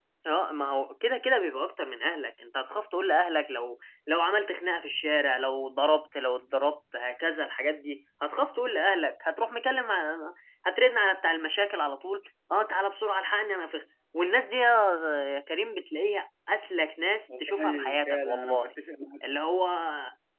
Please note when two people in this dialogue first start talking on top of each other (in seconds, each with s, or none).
17.3 s